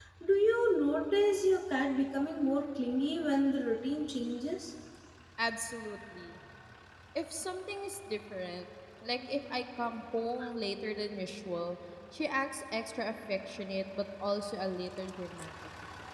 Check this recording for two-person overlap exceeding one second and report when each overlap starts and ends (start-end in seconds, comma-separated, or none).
none